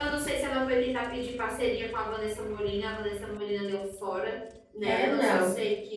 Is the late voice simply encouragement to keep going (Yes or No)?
Yes